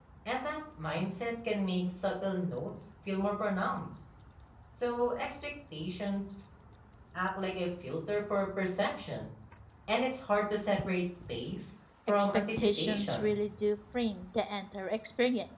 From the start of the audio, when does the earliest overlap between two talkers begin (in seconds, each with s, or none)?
12.2 s